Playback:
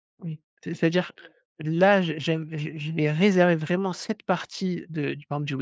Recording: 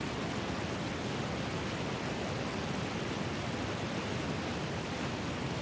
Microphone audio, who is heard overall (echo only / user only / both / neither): neither